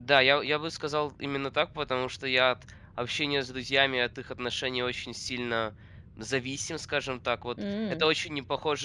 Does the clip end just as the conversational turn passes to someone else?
No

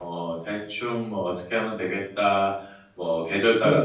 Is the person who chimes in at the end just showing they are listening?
No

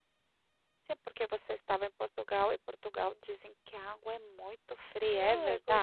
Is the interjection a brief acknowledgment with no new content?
No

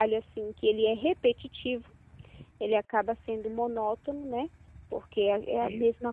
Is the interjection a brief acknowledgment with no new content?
Yes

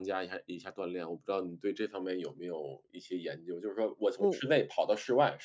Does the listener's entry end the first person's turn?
No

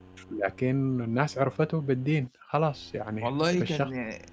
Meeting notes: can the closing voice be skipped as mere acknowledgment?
No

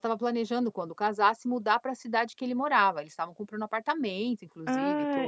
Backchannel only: No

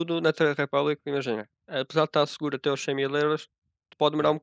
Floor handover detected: No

